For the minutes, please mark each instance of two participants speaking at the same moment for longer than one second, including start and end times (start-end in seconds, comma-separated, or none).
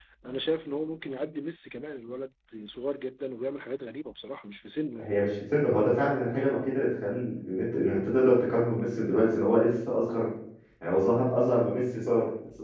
none